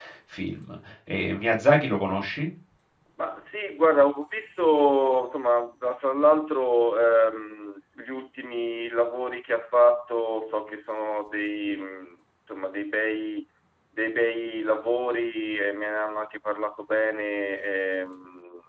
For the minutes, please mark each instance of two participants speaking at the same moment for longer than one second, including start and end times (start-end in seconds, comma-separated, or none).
none